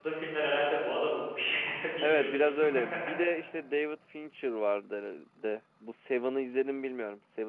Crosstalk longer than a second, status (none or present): none